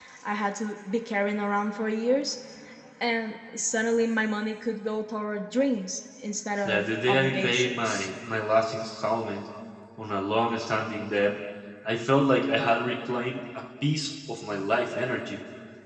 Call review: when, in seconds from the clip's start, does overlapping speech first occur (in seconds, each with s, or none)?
6.6 s